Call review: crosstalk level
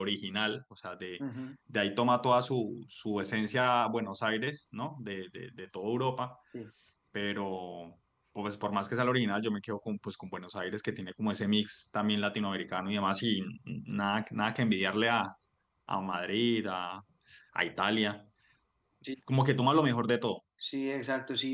none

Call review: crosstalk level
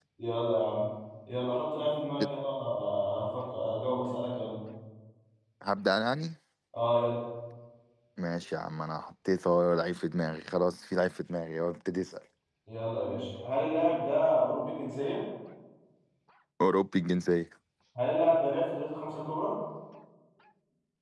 none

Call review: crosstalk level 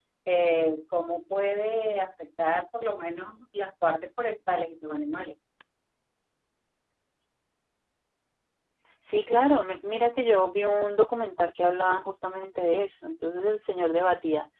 none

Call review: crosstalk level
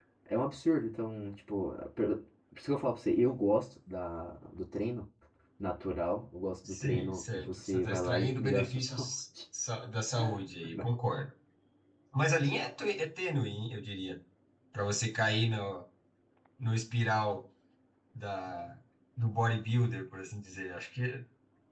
present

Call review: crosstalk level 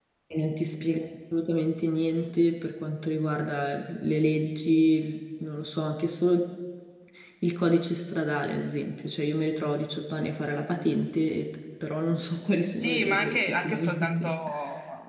present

